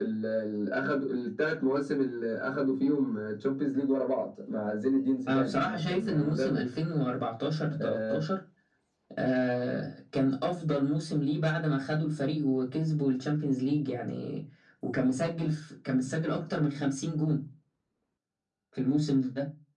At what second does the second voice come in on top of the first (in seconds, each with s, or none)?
5.3 s